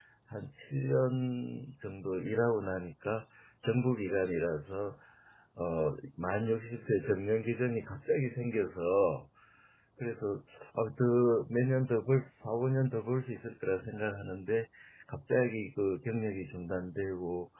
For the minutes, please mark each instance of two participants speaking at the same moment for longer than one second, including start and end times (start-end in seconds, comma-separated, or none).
none